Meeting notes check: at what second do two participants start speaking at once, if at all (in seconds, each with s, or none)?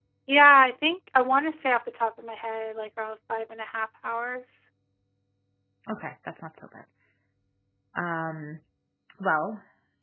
none